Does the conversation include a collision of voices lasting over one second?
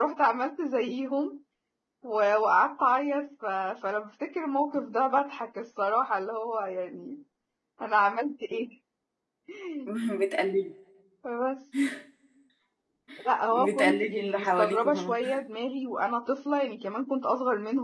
Yes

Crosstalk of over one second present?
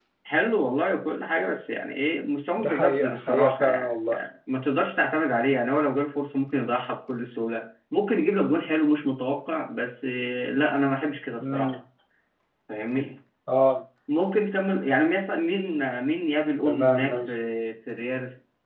Yes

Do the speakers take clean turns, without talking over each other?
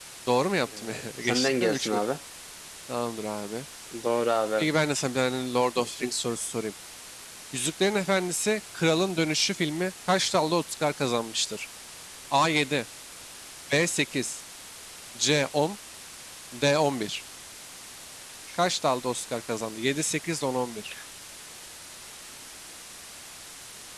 No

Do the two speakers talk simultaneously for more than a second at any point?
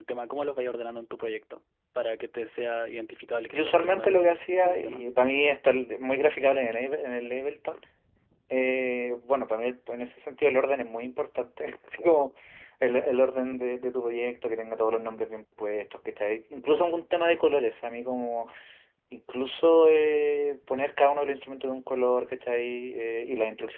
Yes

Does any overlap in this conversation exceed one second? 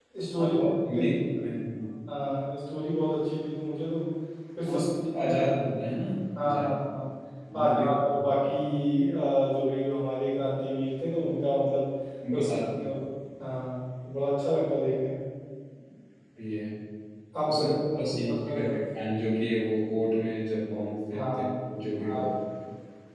Yes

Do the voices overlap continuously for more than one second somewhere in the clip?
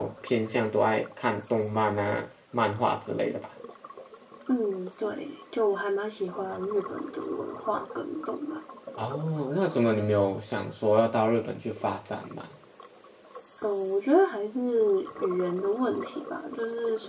No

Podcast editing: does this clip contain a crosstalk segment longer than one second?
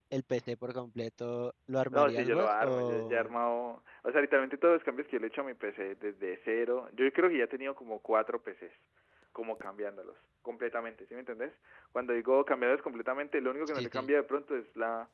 Yes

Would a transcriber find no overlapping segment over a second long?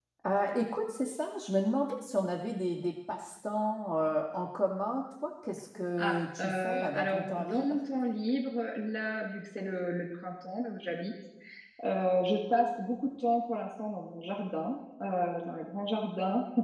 No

